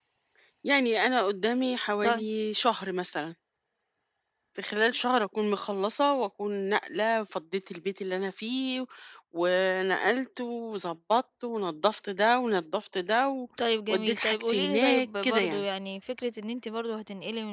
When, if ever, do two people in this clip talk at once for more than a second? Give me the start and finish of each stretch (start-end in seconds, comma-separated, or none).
13.9-15.6